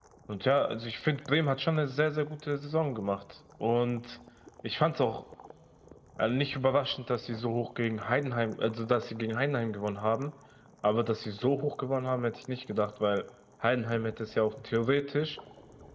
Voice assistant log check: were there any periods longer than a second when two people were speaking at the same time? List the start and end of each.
none

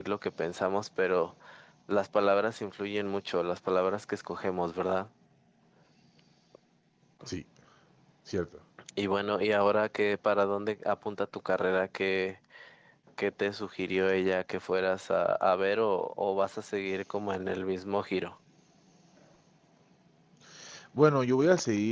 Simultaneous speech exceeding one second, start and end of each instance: none

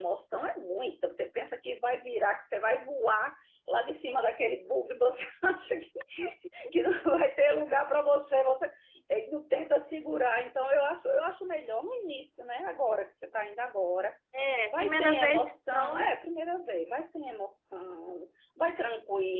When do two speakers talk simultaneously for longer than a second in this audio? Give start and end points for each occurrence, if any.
14.7-16.1

